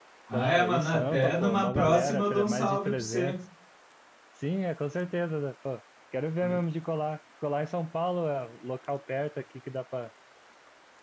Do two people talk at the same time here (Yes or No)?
Yes